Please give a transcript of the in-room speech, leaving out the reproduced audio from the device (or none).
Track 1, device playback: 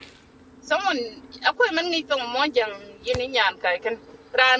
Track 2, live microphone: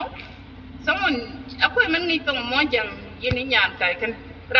none